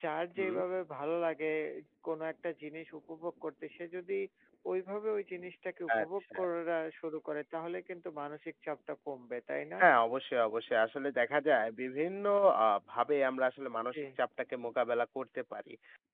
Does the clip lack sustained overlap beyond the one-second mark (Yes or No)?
Yes